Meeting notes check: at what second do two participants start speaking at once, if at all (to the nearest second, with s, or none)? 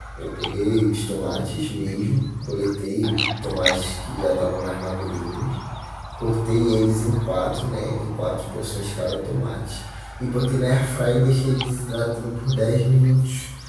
none